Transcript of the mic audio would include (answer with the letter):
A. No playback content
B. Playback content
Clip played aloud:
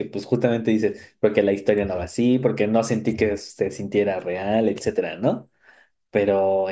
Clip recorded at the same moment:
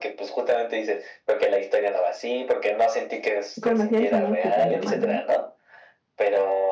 B